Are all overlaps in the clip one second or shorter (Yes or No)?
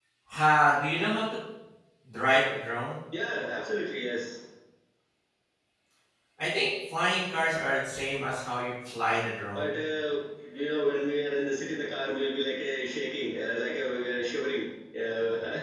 Yes